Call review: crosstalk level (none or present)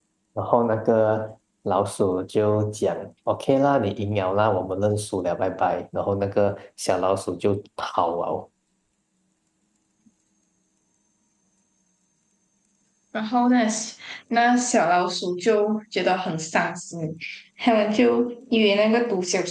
none